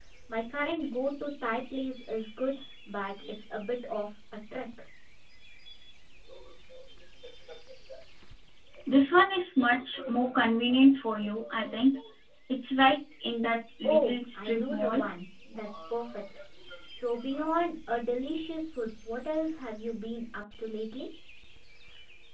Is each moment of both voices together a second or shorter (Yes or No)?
No